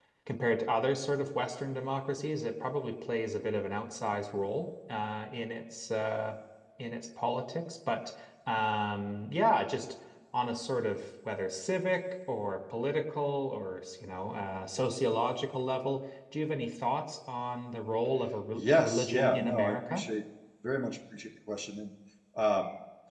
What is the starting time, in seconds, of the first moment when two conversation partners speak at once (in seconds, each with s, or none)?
18.6 s